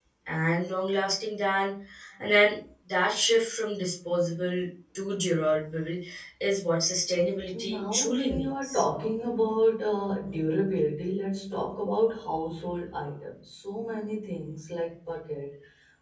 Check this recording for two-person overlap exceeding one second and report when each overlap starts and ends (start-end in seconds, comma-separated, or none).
7.5-8.8